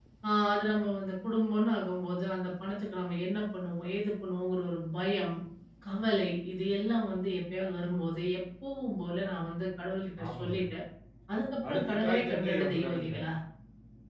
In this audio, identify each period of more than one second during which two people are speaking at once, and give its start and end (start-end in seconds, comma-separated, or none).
11.7-13.2